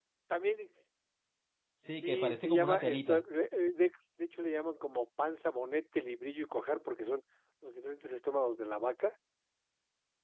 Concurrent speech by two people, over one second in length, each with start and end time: 2.0-3.2

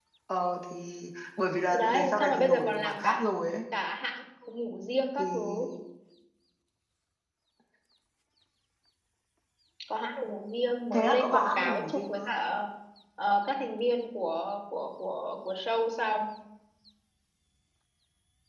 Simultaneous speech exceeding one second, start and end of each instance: 1.7-3.2, 10.9-12.3

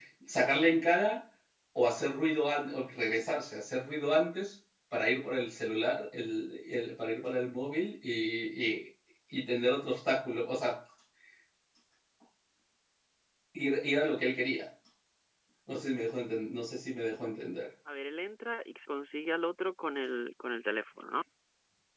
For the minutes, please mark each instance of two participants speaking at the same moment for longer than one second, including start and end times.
none

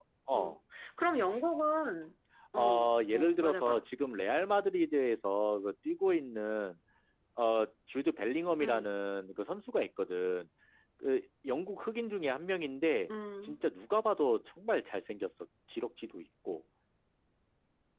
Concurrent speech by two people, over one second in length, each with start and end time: 2.6-3.8

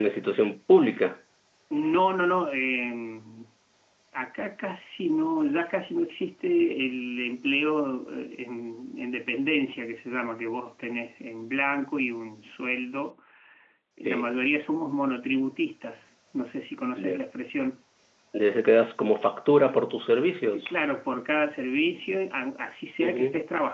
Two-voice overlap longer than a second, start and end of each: none

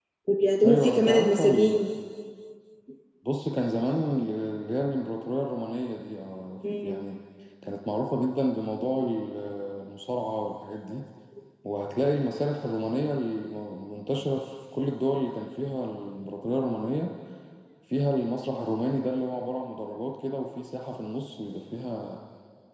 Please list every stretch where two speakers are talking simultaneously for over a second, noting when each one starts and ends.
0.7-1.9

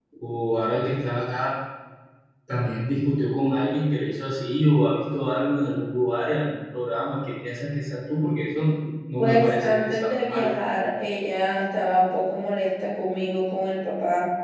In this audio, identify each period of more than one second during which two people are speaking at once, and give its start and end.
9.2-10.5

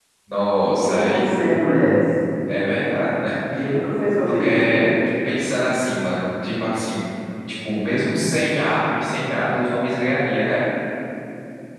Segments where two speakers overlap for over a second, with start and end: none

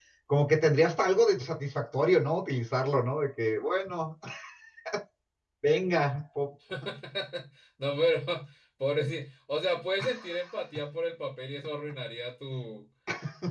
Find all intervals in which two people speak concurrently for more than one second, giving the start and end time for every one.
none

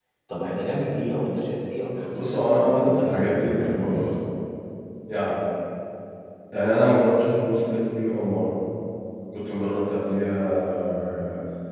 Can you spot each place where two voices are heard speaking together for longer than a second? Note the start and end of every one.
2.1-4.1

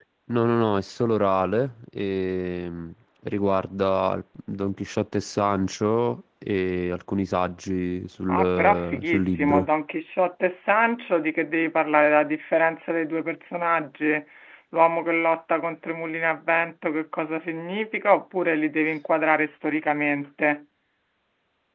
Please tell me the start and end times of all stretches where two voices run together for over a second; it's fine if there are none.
8.3-9.7

